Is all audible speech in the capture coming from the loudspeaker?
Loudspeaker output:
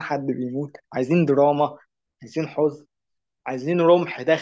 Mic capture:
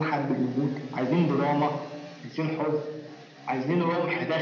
Yes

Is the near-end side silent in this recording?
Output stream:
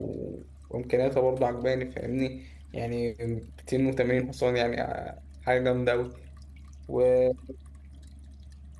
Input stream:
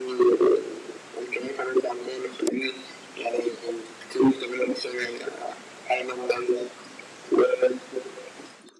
Yes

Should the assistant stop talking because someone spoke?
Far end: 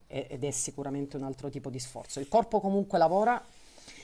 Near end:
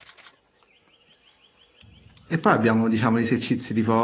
Yes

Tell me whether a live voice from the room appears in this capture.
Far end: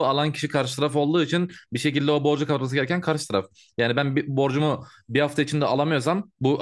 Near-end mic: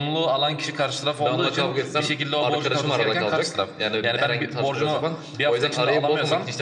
Yes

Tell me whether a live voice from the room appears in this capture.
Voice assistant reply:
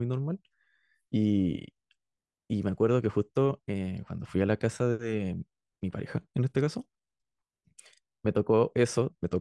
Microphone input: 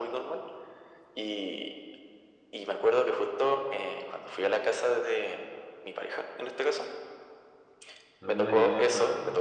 Yes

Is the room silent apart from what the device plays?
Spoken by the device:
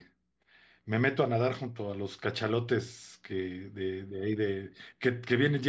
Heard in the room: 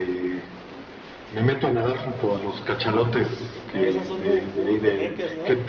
No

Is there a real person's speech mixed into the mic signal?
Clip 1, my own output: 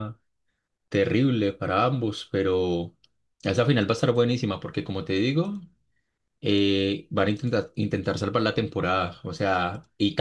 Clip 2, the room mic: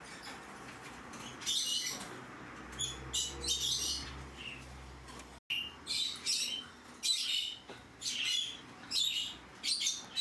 No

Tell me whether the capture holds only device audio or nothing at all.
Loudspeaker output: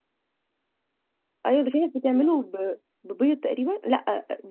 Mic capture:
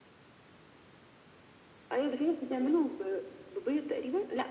Yes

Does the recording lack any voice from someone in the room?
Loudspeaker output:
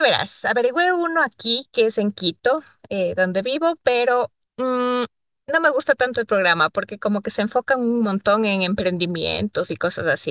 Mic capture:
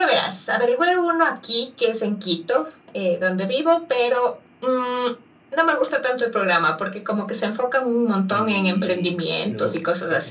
No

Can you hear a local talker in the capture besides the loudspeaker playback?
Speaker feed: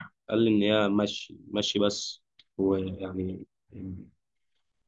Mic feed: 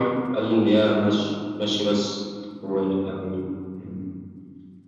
No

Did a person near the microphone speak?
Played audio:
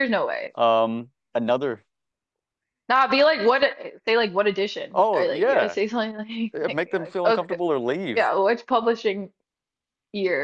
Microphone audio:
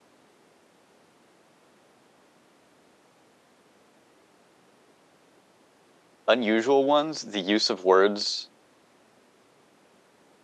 Yes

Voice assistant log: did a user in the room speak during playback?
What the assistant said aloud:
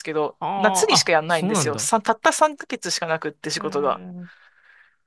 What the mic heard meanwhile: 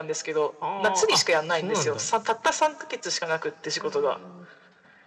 No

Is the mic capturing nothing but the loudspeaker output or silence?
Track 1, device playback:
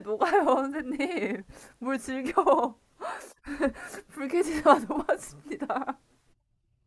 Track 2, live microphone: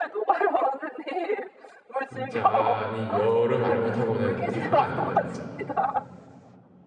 No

